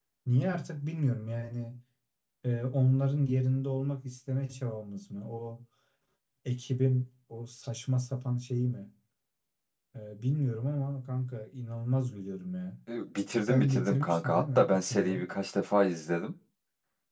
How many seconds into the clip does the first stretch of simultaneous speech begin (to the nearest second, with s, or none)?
13 s